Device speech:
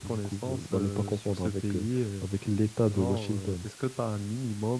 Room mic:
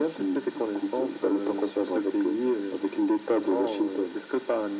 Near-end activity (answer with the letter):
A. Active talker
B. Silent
B